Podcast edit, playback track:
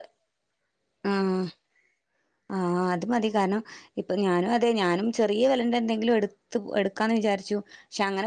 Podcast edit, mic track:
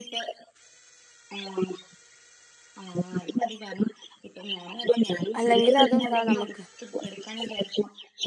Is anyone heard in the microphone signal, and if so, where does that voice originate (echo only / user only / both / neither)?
both